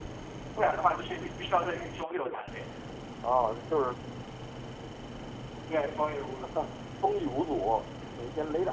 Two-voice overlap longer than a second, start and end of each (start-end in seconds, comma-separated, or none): none